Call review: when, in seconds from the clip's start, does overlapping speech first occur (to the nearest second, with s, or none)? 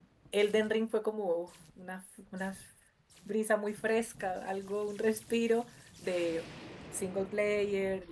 none